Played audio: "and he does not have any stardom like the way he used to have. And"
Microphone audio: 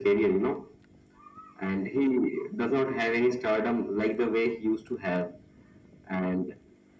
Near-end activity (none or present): none